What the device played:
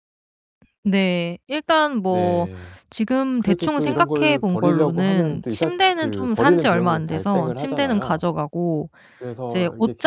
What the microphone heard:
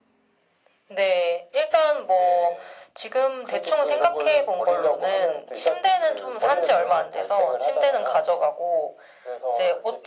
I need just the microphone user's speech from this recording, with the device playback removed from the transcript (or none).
none